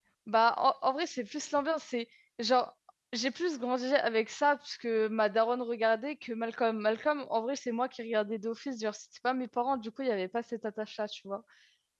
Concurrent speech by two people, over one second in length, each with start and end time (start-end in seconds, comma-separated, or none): none